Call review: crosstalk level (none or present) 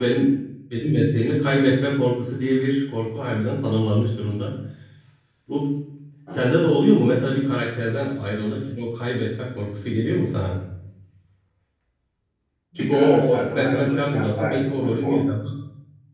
present